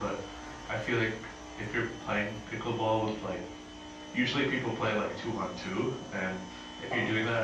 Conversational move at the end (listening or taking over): listening